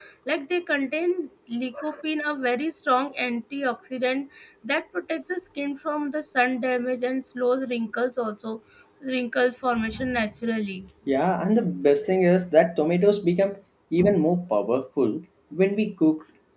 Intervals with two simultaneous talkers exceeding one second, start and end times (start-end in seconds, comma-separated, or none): none